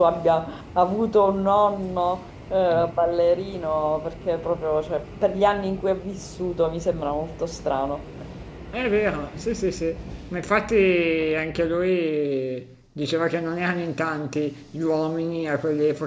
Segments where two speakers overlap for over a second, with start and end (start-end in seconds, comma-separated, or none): none